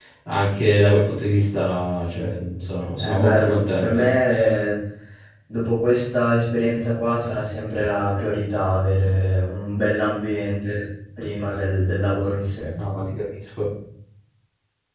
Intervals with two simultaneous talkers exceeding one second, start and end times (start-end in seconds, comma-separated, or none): 2.0-4.1